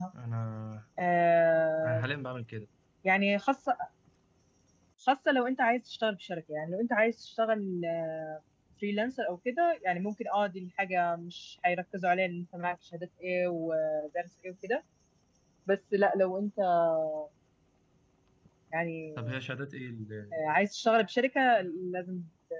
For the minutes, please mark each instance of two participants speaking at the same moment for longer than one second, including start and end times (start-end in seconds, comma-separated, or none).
none